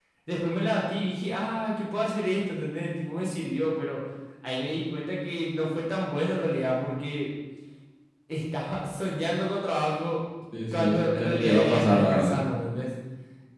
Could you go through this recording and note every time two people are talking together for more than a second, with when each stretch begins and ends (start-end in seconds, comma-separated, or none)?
10.7-12.4